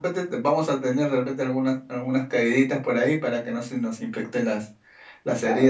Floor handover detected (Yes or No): Yes